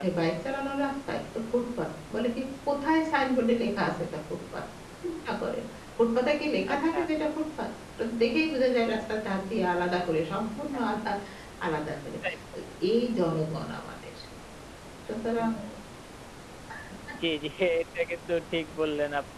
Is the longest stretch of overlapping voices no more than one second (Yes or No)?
Yes